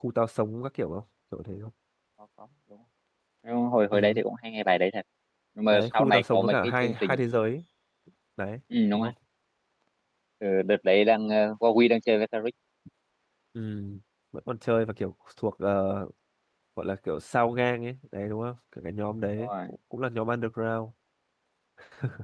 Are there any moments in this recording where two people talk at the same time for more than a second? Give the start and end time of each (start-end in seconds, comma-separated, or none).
5.7-7.2